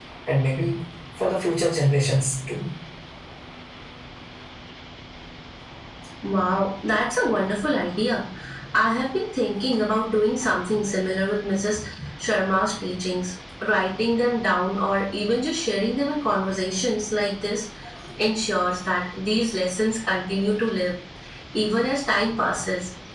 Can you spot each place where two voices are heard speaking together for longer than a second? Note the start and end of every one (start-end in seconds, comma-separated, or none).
none